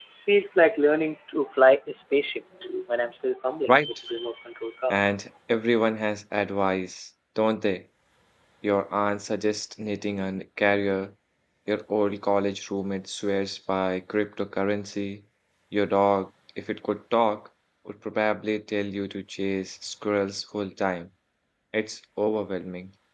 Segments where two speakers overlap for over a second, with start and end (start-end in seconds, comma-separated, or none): none